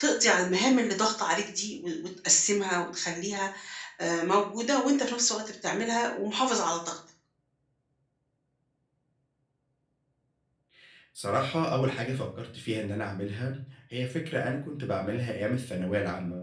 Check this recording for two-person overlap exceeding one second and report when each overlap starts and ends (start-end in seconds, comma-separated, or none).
none